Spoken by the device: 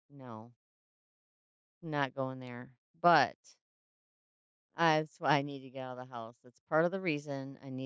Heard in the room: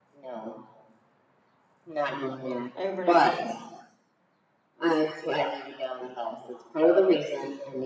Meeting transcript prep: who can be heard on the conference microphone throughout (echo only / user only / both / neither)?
both